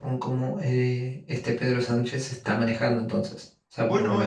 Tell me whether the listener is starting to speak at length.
No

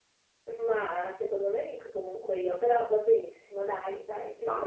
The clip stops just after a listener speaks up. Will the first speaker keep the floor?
No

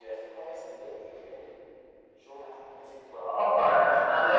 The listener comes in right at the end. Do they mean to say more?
Yes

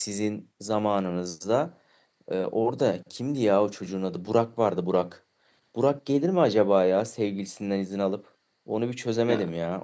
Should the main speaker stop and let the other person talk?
No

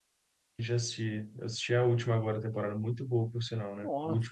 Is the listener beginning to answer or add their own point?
Yes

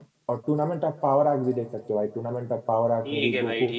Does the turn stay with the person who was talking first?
No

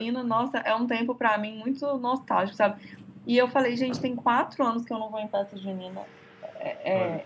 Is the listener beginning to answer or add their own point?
No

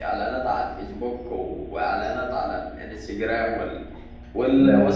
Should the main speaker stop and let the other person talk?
Yes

